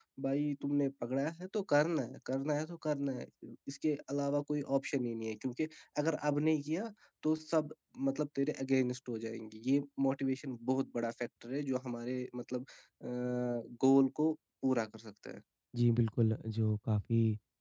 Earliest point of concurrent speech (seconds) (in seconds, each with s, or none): none